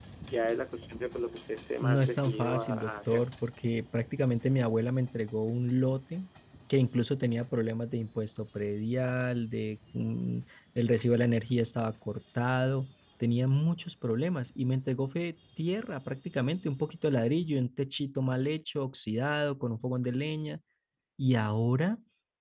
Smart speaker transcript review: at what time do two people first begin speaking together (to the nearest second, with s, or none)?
2 s